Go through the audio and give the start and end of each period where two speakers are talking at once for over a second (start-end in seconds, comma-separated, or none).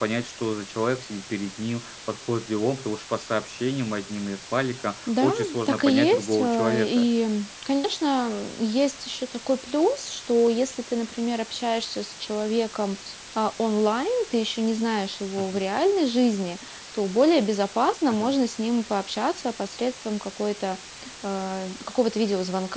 5.1-7.1